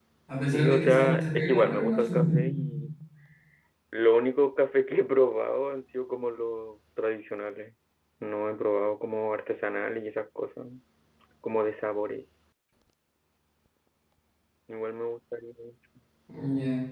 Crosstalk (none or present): present